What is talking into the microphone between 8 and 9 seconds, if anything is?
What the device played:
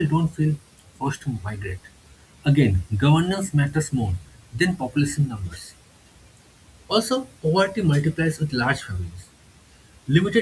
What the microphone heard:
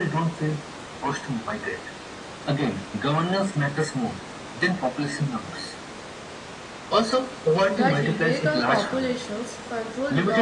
both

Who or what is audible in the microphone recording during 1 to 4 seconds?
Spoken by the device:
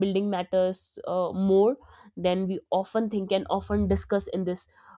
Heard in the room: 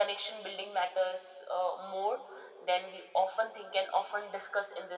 echo only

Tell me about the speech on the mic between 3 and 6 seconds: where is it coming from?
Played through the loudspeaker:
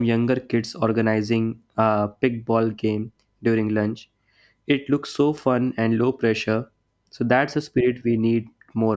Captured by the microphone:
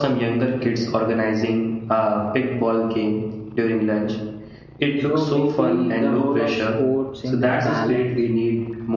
both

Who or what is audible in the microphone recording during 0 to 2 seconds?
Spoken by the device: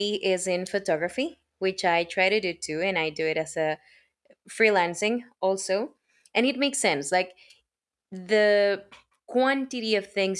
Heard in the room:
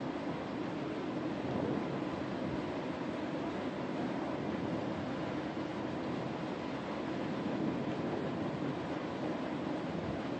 neither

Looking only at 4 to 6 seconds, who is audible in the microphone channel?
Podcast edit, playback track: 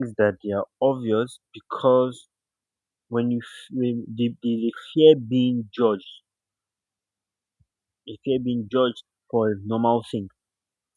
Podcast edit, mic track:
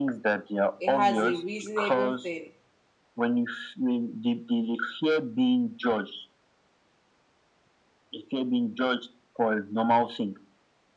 echo only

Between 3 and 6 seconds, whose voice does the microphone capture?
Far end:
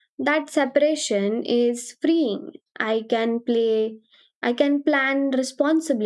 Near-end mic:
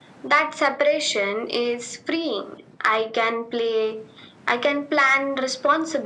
echo only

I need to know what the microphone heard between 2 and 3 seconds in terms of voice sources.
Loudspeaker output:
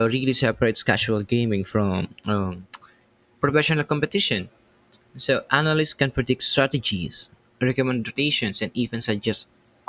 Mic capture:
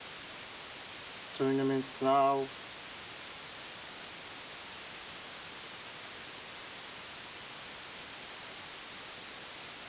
user only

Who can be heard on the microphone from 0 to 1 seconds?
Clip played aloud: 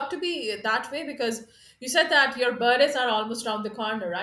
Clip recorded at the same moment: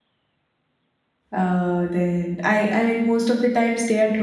neither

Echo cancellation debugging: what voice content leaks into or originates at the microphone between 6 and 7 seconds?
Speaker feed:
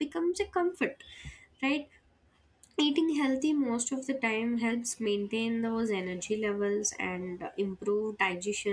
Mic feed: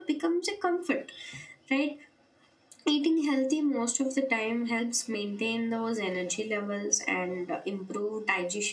echo only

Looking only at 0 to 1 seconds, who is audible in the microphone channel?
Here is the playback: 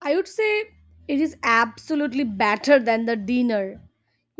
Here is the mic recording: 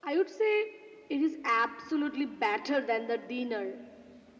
echo only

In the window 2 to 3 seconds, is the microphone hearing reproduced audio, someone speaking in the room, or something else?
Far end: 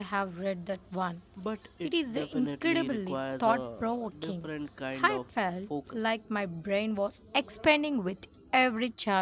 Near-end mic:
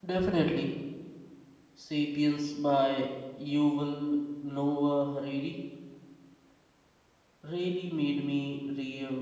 user only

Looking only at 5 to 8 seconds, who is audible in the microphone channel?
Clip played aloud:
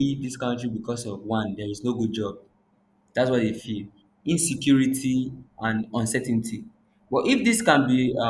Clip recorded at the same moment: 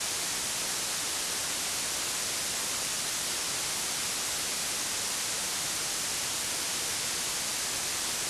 neither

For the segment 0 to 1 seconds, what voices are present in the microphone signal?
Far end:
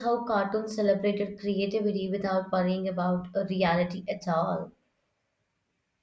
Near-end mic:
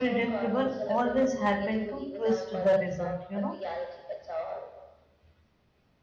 both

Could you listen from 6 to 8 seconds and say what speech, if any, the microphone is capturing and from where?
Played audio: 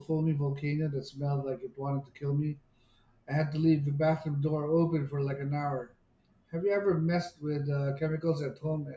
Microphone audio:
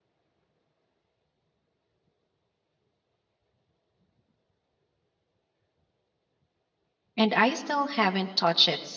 user only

